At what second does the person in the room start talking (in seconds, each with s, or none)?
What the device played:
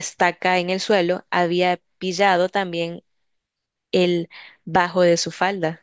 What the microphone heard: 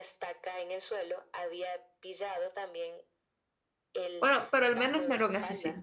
4.2 s